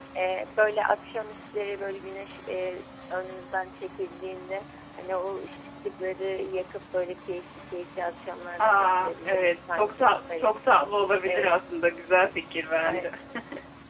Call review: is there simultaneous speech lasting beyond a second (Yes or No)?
Yes